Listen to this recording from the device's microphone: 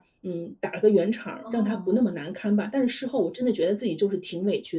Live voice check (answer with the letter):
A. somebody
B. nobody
A